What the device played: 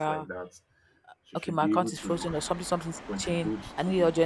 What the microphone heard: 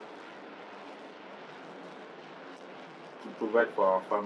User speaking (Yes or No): Yes